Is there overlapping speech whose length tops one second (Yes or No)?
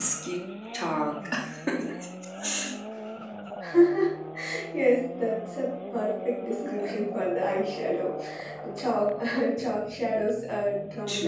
No